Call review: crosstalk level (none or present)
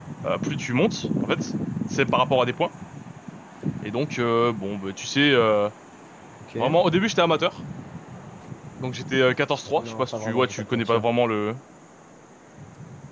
present